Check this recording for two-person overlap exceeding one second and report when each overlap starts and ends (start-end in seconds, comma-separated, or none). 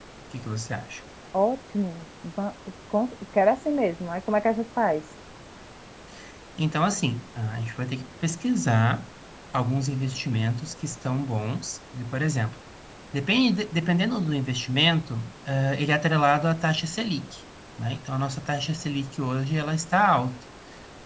none